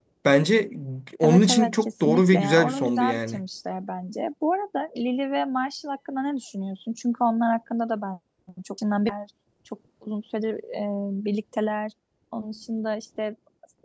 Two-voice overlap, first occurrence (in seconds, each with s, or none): 1.2 s